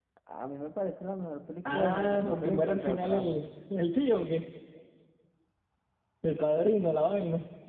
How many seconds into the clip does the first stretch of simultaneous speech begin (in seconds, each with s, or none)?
1.6 s